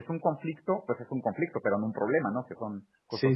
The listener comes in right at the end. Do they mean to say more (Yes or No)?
Yes